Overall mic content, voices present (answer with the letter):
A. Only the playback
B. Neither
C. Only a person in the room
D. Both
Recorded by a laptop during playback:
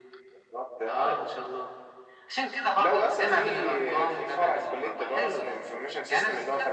A